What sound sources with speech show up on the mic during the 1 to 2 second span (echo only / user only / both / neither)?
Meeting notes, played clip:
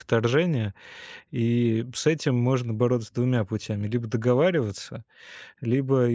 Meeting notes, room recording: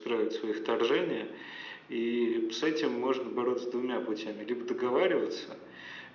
echo only